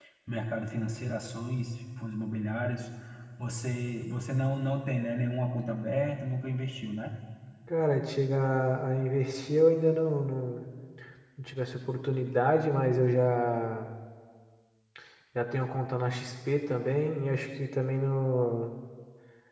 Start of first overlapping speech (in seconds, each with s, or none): none